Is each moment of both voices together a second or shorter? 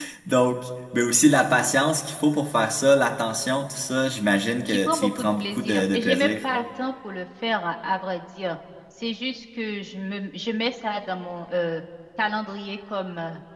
No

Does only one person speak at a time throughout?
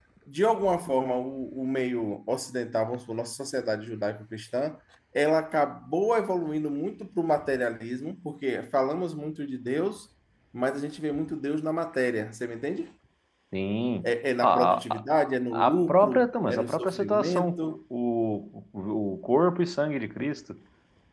No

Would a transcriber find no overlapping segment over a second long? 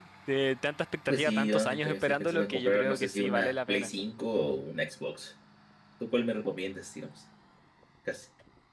No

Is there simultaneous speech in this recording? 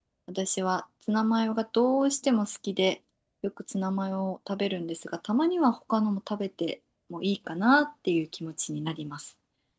No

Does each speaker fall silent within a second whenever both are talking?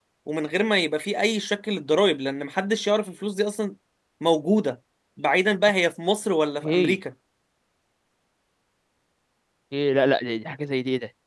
Yes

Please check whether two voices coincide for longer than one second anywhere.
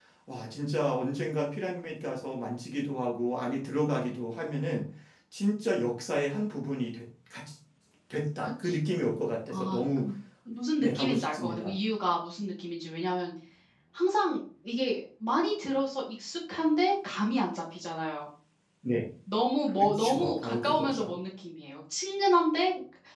Yes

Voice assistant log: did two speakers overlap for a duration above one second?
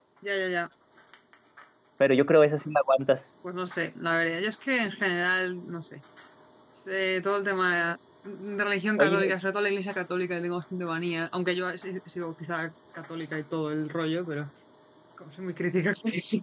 No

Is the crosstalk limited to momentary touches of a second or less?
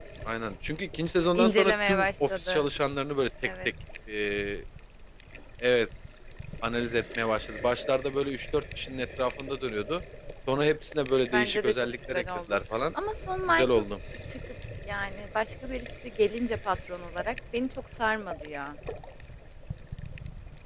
No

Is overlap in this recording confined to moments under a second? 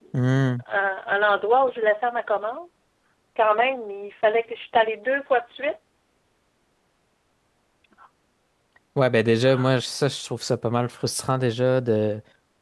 Yes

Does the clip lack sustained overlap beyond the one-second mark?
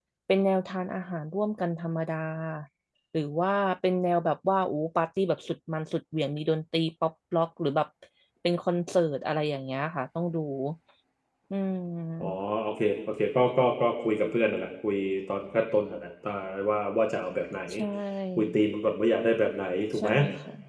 Yes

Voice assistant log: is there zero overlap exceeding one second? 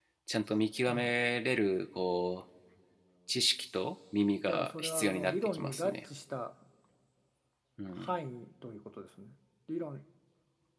No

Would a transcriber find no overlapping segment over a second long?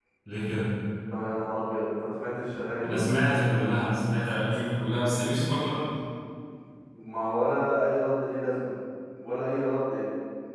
Yes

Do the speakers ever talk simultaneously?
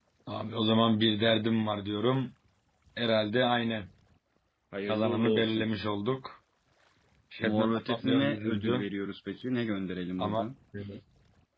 Yes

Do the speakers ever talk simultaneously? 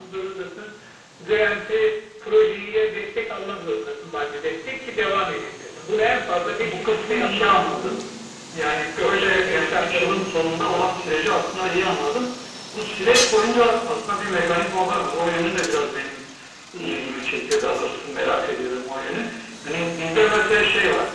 Yes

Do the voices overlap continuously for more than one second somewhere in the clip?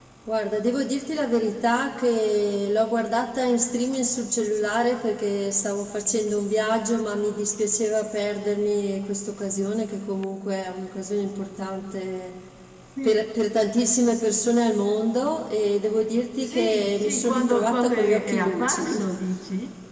Yes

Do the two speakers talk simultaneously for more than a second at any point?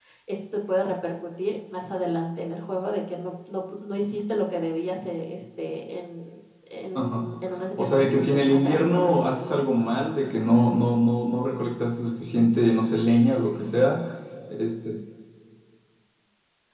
Yes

